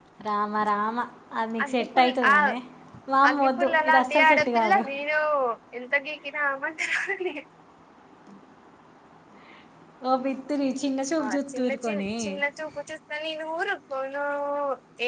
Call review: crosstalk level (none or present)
present